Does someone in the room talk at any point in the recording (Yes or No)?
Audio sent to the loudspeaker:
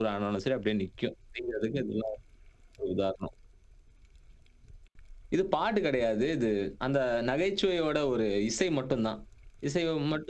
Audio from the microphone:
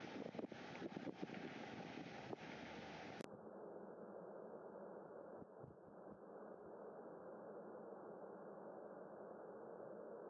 No